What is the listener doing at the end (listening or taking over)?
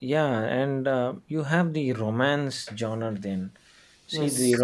listening